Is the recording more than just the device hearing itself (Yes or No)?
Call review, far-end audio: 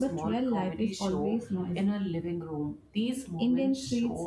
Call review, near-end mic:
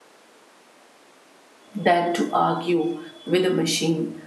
Yes